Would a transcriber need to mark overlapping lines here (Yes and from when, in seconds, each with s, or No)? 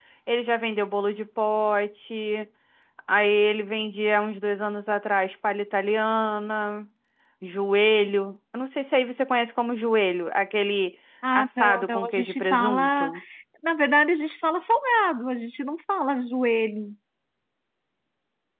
Yes, from 11.2 s